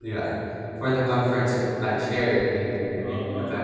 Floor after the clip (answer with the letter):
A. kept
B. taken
A